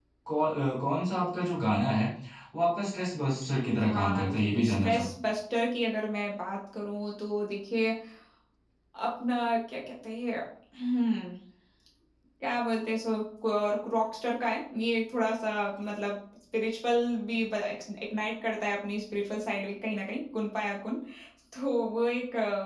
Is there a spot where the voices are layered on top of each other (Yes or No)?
Yes